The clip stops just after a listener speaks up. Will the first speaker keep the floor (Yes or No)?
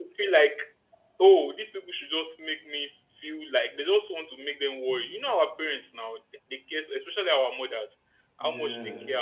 Yes